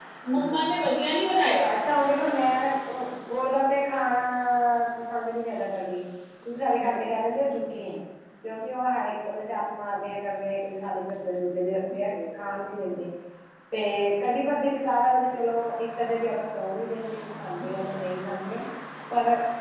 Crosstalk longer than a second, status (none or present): none